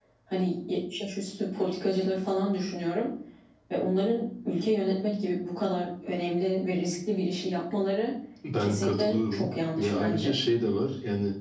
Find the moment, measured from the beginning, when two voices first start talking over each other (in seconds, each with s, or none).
8.6 s